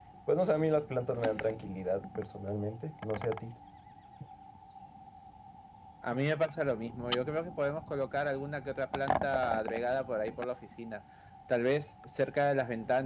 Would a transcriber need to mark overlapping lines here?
No

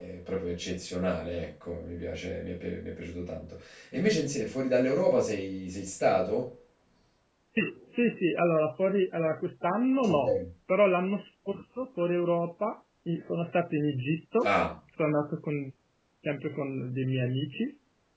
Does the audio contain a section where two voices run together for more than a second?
No

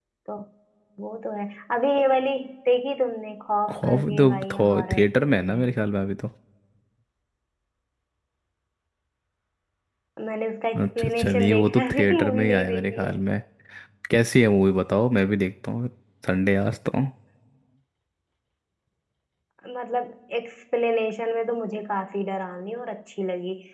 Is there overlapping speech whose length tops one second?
Yes, from 3.7 s

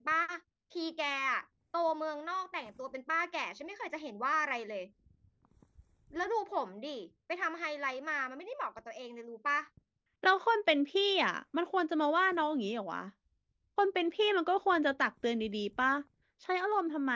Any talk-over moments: No

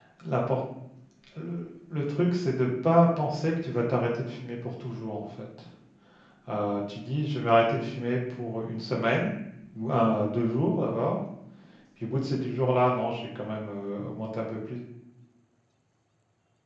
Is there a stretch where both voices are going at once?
No

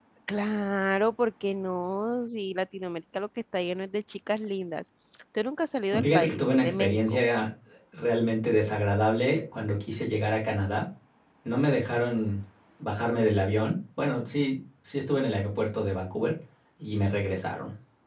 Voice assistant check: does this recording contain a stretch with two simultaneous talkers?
Yes, from 6.0 s

